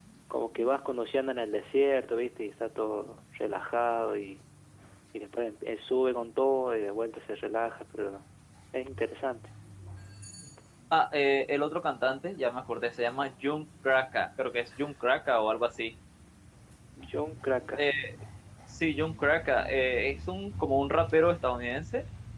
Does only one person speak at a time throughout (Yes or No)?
Yes